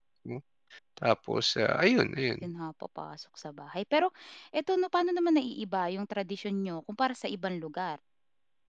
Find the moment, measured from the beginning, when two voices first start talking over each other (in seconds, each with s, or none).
none